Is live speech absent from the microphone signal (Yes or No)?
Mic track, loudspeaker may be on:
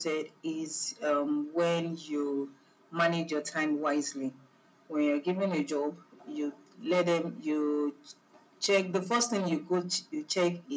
Yes